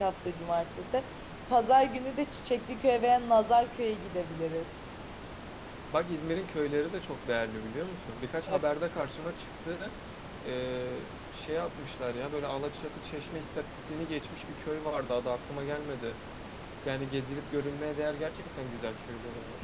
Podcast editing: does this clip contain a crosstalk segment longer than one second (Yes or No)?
No